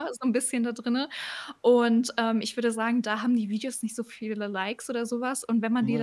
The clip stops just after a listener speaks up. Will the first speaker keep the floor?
Yes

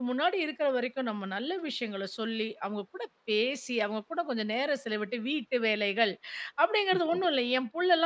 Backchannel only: Yes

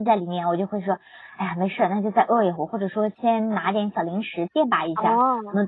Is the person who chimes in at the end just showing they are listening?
Yes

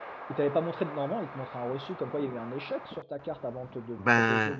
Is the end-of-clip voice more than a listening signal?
Yes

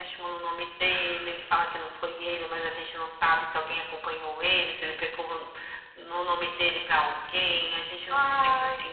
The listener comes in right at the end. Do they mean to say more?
No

